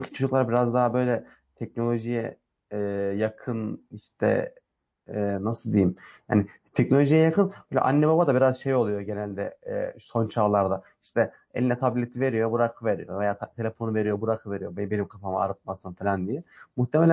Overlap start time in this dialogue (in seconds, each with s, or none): none